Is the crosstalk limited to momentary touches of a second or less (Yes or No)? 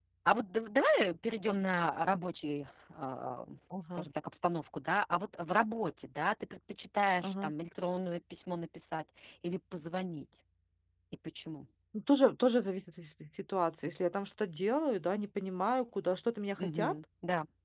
Yes